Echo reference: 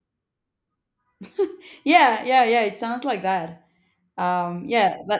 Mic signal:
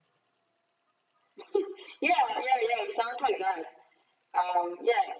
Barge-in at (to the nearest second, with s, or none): none